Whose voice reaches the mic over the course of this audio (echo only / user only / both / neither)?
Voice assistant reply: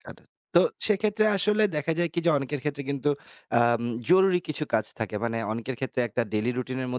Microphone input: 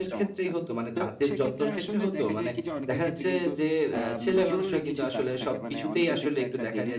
both